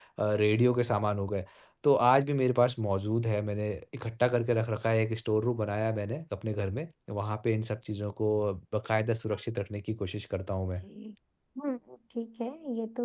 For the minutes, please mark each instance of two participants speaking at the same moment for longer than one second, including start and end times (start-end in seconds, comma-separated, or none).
none